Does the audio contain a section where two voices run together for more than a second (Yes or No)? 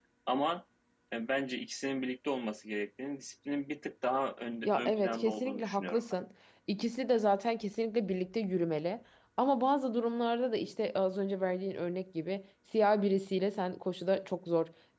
Yes